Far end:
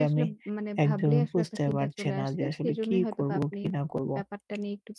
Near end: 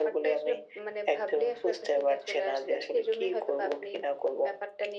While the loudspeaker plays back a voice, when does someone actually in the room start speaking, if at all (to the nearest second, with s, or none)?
none